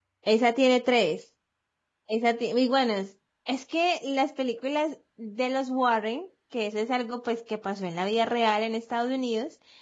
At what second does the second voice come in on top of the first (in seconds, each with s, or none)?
none